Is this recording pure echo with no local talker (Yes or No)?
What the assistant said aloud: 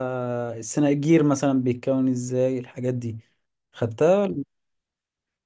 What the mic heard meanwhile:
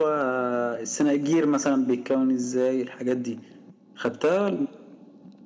Yes